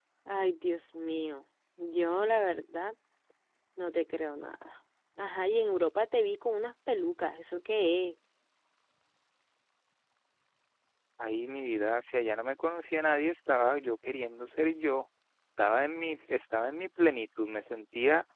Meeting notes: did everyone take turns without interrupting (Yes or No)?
Yes